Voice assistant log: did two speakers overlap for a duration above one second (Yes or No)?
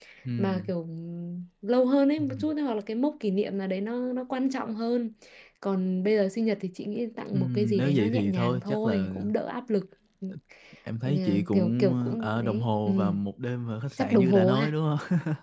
Yes